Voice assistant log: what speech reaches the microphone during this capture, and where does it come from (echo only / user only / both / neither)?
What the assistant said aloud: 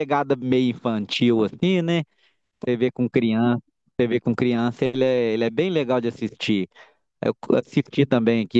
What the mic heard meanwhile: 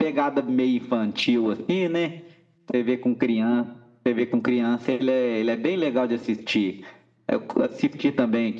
echo only